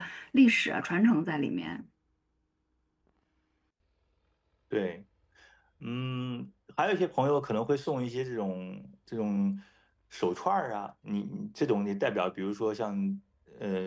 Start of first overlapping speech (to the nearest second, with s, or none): none